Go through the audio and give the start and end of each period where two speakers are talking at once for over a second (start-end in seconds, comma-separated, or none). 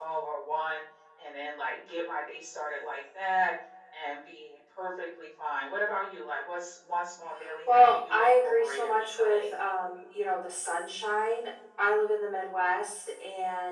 7.7-9.5